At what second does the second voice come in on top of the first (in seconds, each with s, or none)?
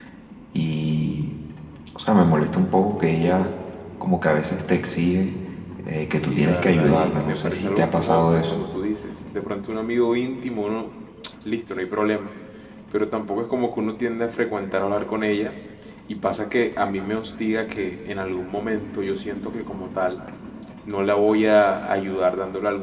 6.2 s